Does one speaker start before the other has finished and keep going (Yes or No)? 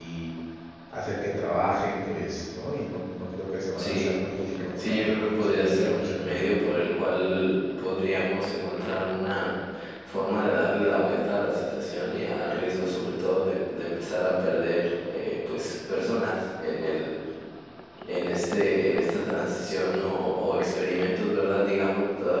Yes